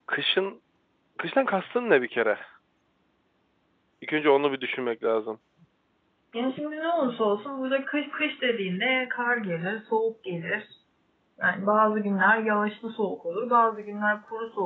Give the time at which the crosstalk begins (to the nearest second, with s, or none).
none